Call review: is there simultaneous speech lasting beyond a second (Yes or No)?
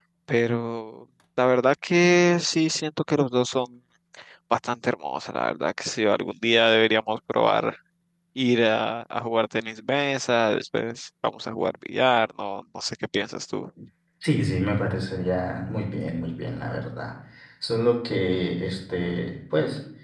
No